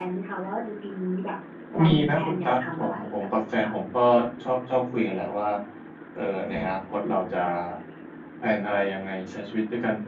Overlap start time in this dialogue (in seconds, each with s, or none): 1.9 s